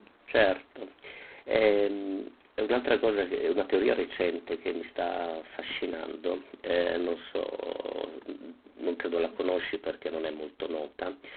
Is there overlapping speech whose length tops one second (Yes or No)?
No